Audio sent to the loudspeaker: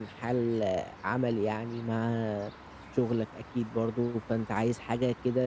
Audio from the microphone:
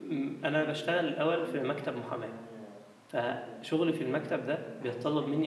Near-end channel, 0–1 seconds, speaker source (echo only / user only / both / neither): both